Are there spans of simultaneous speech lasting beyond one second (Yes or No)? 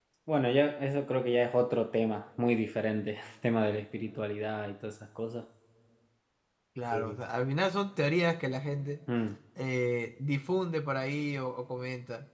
No